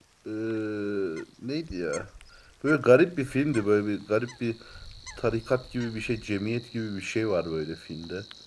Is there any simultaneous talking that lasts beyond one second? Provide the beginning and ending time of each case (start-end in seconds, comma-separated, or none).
none